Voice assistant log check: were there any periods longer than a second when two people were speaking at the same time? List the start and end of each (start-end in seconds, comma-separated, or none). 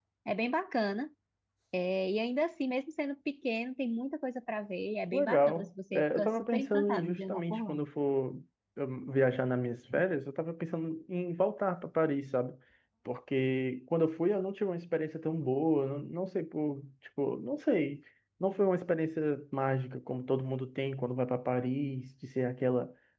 5.1-7.8